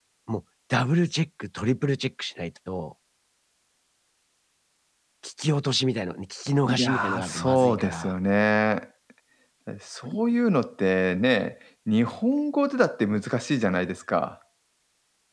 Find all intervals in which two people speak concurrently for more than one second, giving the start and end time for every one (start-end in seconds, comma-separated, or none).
6.6-8.1